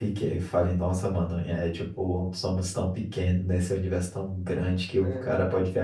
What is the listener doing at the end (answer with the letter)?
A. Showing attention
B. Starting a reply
A